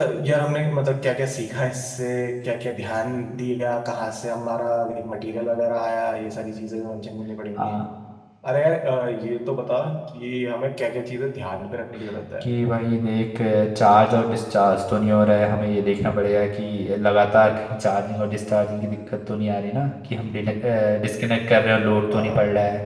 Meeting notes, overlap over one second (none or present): none